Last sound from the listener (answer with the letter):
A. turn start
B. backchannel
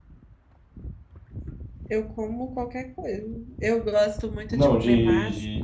A